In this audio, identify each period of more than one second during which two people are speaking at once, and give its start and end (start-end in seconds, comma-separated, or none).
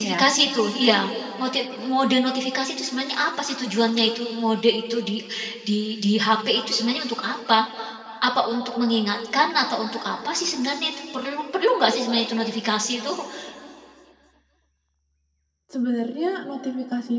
none